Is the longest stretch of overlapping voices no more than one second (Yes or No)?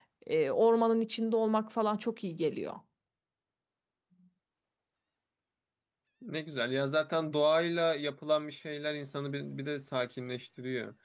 Yes